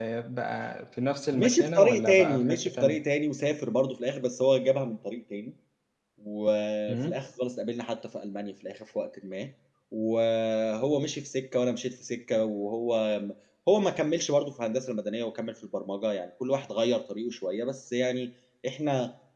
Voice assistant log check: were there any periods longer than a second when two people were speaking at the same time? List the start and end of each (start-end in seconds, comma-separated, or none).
1.3-3.0